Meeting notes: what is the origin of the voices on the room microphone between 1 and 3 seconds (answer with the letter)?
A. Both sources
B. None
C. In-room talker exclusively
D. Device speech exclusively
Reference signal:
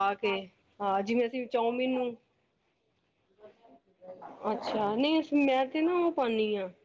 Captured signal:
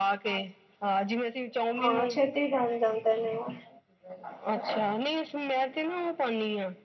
A